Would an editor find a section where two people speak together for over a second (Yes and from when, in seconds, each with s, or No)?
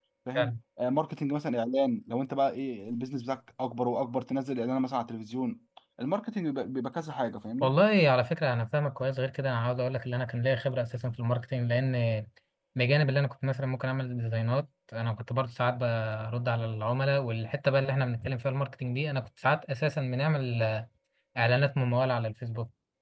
No